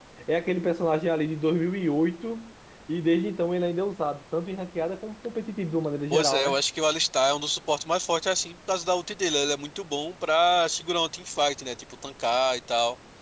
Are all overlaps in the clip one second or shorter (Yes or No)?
Yes